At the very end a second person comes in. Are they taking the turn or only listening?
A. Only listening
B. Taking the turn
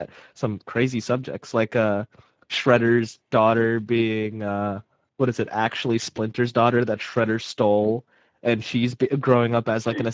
A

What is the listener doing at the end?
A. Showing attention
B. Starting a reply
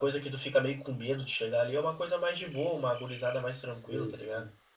B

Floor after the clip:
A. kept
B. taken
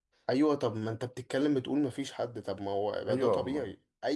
A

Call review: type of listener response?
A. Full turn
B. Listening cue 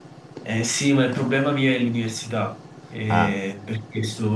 B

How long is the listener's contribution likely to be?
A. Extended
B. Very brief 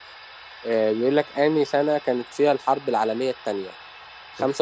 B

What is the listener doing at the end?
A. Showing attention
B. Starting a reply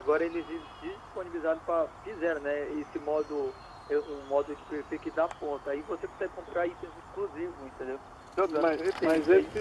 B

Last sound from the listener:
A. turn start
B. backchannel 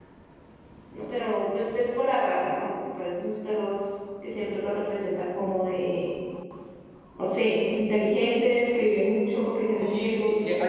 A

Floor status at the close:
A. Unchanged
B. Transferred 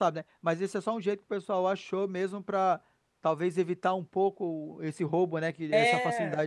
B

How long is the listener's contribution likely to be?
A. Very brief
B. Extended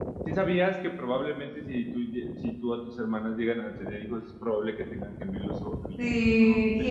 B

